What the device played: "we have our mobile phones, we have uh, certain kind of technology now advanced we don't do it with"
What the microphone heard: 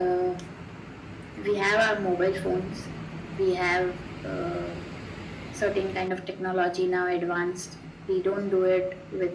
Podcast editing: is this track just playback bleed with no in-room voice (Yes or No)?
Yes